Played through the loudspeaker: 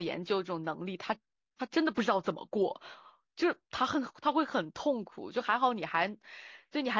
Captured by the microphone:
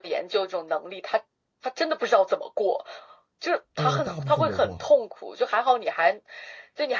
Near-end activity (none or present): present